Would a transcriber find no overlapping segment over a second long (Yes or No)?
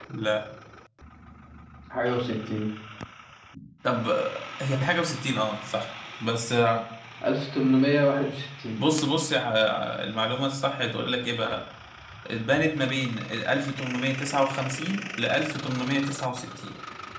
Yes